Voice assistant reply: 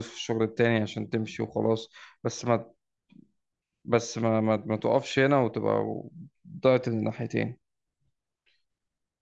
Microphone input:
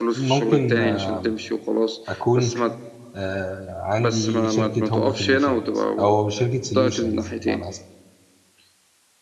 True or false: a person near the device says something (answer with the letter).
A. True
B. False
A